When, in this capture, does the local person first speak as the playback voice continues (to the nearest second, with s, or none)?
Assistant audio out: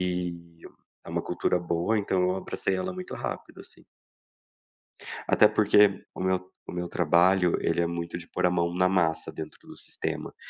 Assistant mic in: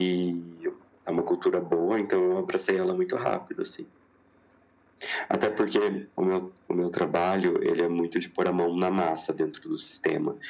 none